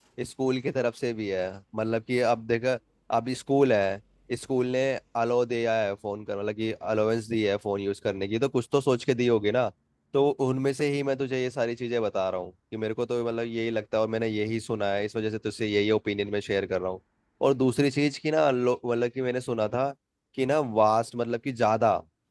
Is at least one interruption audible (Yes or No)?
No